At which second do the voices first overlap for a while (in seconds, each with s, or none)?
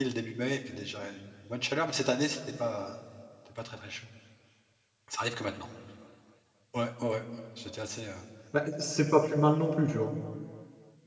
none